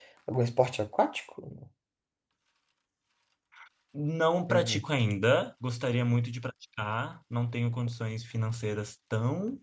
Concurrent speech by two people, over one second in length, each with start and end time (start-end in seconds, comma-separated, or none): none